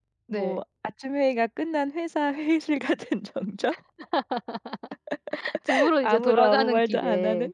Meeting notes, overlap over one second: present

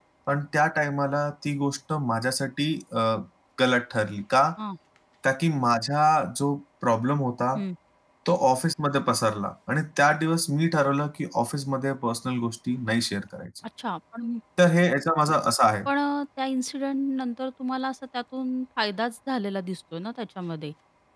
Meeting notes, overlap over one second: none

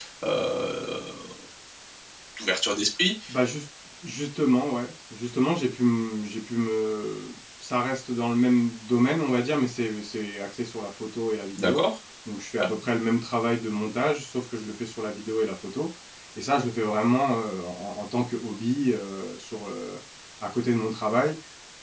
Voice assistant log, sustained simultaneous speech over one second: none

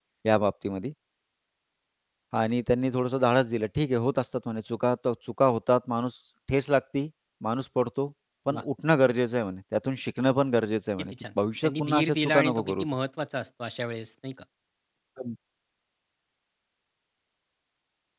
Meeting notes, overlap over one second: present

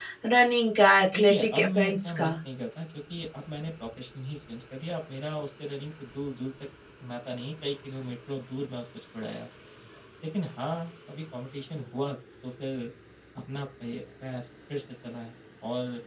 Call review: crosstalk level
present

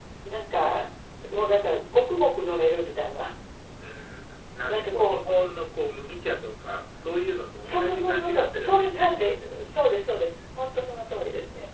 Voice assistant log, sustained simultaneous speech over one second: present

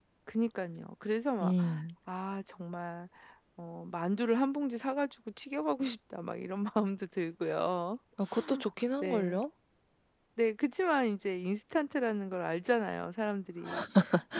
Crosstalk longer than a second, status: none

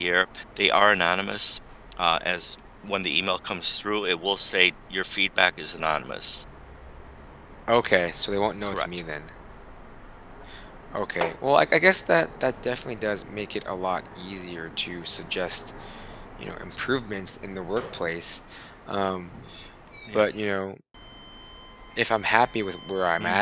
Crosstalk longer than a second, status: none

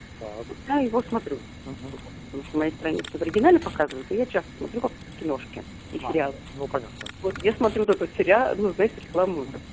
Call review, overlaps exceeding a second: none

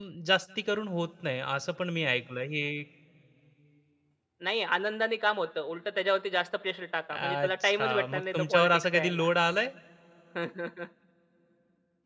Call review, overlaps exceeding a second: present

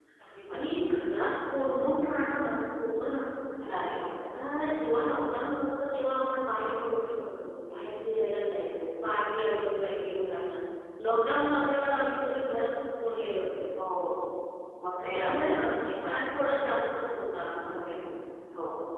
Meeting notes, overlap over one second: none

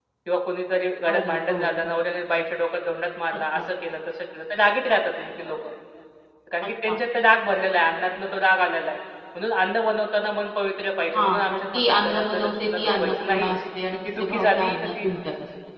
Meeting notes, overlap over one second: present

